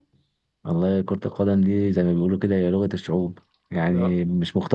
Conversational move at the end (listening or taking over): listening